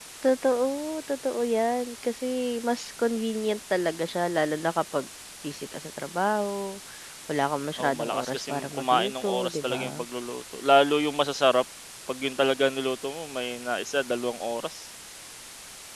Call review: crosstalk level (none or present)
present